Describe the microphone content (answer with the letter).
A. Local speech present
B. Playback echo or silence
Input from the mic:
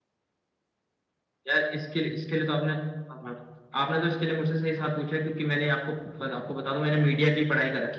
B